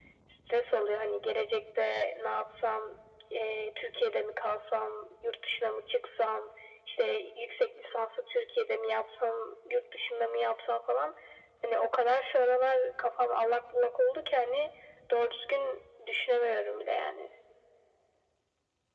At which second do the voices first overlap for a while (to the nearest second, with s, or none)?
none